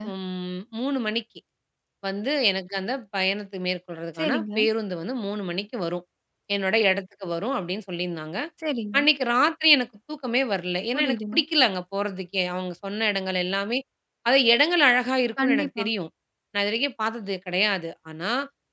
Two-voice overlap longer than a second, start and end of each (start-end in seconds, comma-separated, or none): none